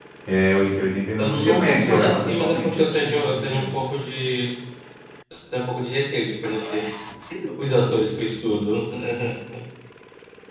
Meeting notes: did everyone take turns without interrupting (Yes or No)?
No